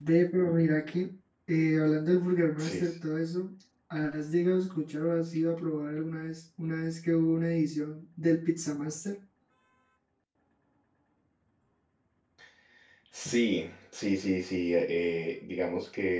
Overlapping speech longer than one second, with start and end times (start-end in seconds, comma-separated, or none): none